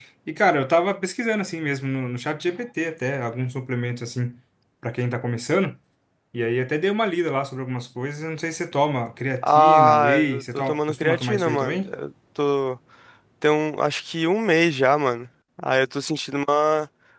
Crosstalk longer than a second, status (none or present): present